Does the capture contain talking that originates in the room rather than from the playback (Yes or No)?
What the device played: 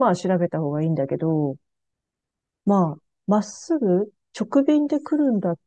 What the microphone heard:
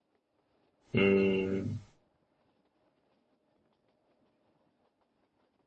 Yes